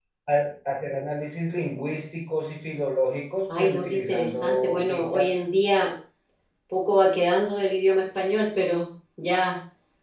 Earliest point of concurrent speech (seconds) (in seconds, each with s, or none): 3.5 s